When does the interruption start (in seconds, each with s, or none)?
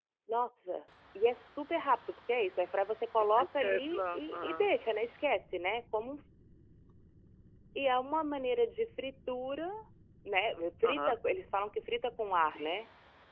3.2 s